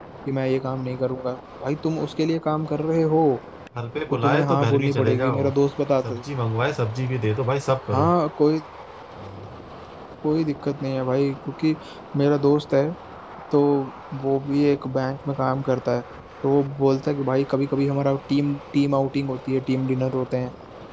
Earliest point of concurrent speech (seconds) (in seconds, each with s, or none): 4.1 s